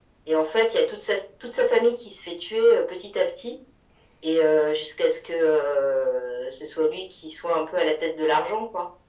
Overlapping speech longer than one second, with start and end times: none

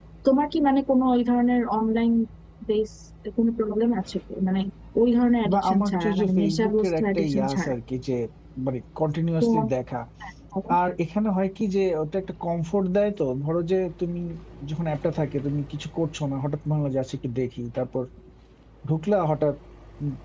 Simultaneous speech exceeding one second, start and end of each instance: 5.5-7.7

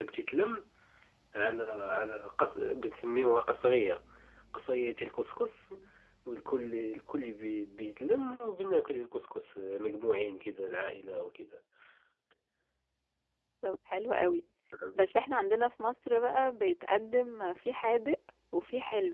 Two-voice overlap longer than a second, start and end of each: none

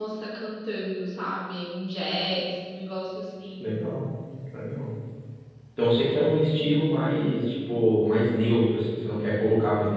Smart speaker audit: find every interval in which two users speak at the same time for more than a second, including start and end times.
none

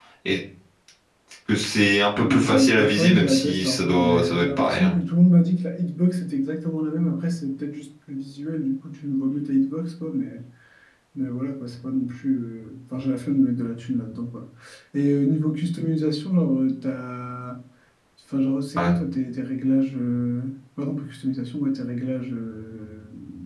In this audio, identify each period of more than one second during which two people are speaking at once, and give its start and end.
2.2-4.9

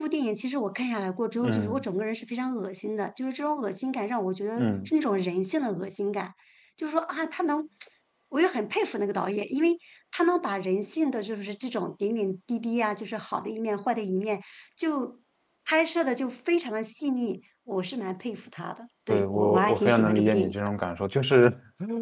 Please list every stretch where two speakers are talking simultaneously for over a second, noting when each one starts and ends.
19.1-20.5

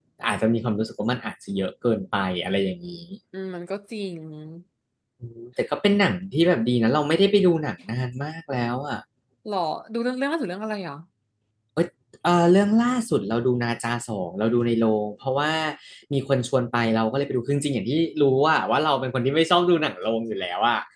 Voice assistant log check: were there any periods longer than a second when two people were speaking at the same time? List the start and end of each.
none

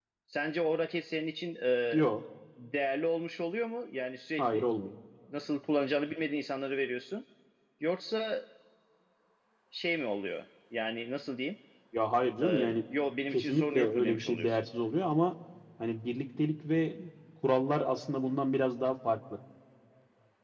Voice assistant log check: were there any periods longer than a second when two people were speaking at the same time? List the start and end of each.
13.3-14.6

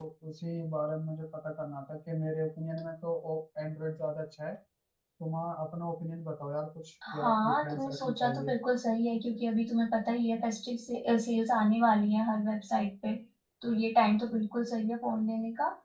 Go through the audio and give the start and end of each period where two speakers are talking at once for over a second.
7.1-8.5

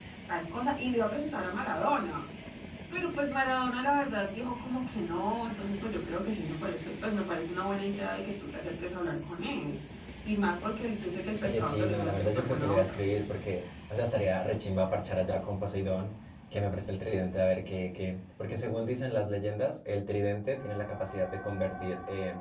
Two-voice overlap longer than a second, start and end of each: 11.4-13.0

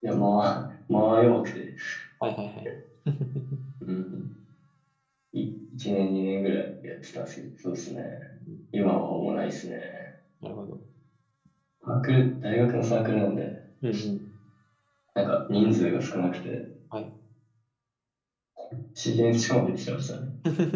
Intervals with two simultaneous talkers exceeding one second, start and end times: none

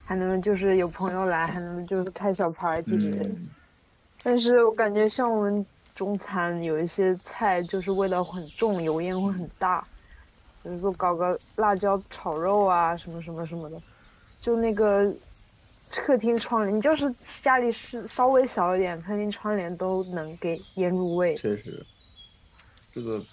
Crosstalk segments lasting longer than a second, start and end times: none

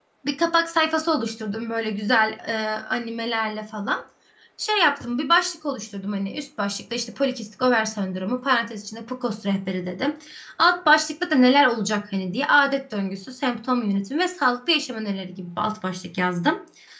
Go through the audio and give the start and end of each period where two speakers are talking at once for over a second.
none

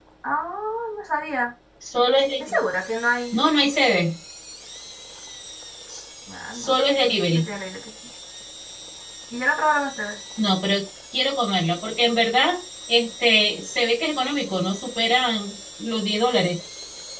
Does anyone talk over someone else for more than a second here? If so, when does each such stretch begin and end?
none

